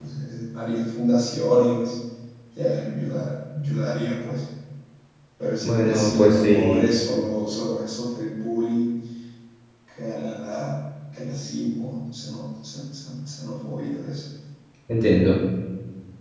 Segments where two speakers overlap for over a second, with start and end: 5.6-6.8

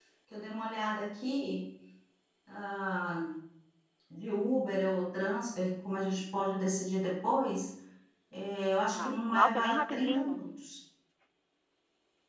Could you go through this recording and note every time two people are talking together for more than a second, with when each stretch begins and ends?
9.0-10.4

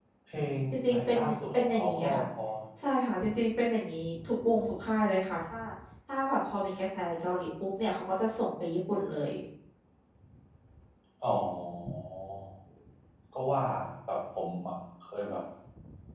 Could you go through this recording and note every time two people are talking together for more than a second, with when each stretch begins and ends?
0.7-2.2

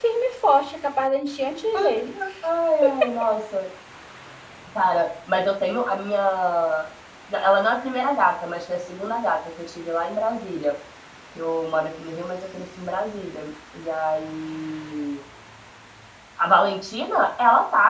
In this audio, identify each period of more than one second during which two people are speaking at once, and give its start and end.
none

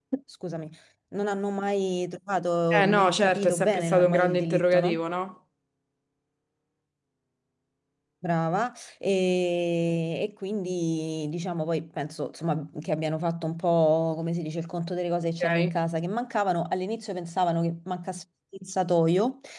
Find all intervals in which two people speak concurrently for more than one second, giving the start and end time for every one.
2.7-5.0

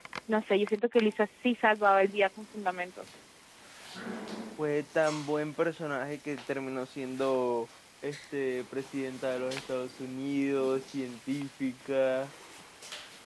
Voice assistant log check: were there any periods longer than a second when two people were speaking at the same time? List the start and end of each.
none

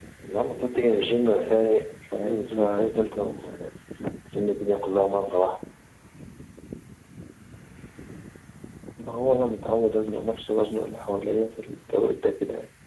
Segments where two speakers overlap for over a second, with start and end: 2.2-3.6

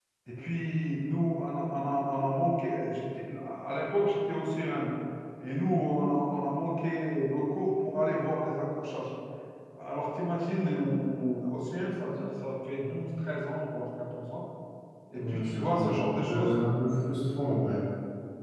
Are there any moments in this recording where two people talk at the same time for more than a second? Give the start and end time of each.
15.2-16.5

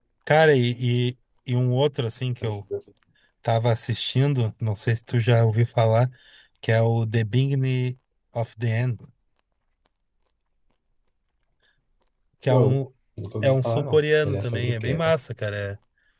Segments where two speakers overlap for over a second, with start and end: 13.4-15.0

